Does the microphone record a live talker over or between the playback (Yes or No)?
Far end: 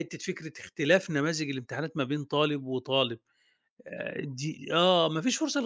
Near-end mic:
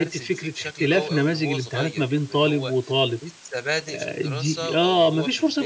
Yes